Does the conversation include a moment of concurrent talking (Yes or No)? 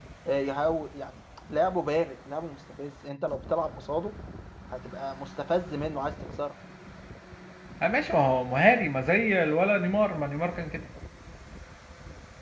No